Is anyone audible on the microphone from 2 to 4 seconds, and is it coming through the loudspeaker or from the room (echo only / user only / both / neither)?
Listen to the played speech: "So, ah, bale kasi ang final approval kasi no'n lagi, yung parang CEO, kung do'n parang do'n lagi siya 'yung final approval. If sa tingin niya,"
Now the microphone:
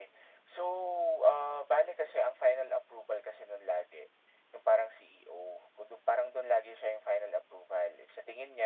echo only